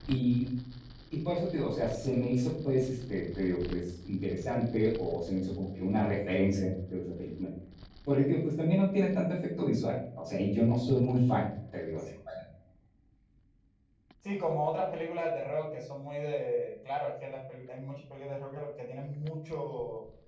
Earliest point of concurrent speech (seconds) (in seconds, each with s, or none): none